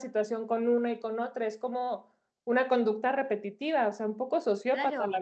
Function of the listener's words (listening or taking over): taking over